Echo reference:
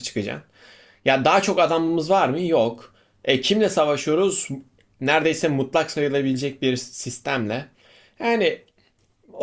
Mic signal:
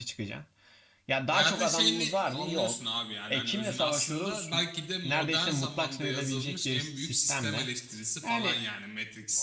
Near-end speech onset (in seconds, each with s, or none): 1.2 s